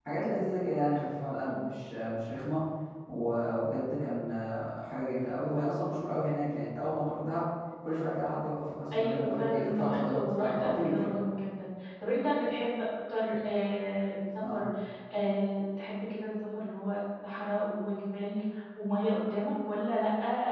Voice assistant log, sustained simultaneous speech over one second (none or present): present